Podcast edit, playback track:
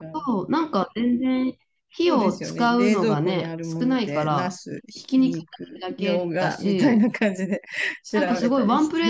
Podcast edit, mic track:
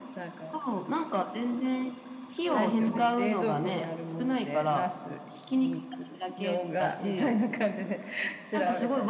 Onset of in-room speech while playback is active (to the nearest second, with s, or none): 3 s